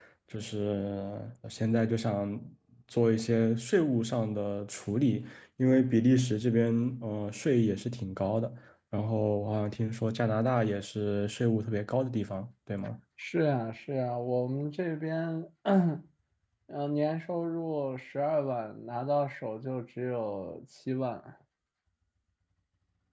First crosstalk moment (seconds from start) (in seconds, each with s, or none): none